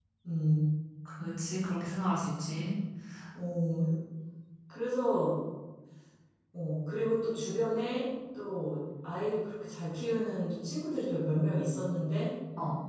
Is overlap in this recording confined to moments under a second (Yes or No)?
Yes